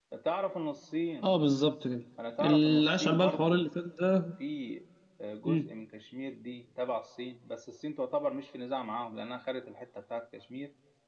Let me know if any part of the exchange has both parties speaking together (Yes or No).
Yes